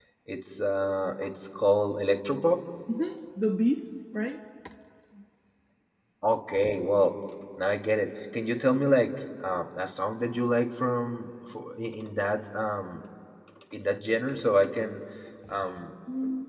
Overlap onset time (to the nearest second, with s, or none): none